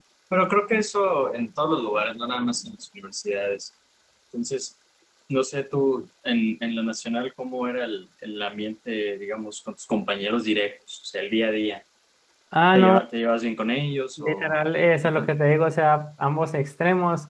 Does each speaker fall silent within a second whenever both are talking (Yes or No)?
Yes